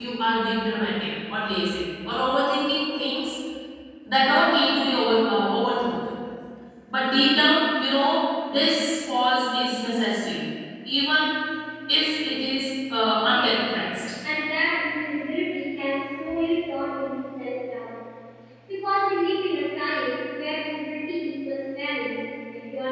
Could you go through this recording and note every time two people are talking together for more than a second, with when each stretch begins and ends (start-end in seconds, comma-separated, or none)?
none